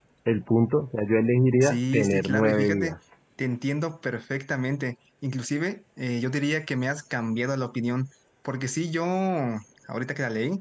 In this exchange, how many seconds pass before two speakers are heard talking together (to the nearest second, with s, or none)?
2 s